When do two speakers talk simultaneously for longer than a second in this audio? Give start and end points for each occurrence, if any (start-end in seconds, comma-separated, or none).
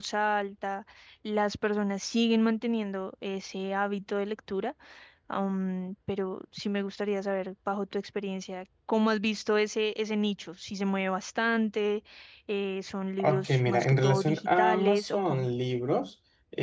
13.2-15.5